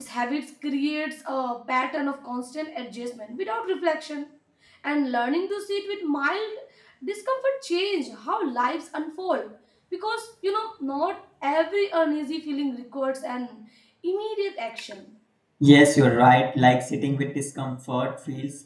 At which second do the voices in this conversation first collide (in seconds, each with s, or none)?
none